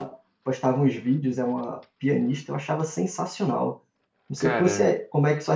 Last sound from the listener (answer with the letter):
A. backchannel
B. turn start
A